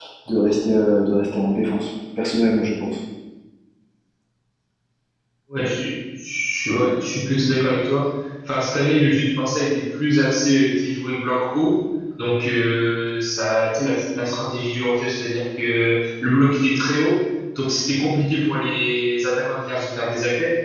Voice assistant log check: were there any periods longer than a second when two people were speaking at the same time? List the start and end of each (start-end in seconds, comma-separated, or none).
none